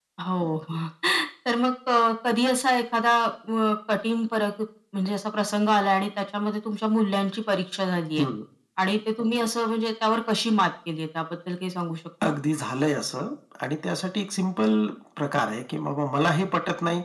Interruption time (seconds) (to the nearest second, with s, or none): none